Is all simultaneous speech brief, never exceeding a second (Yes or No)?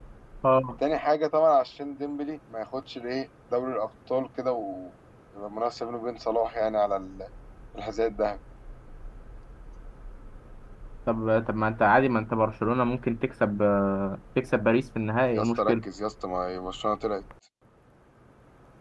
Yes